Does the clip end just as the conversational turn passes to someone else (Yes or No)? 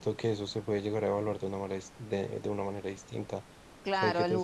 Yes